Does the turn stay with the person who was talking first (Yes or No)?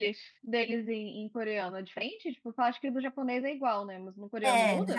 No